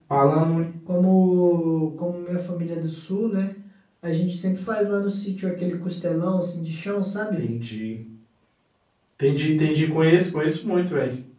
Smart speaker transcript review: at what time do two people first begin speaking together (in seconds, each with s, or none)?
none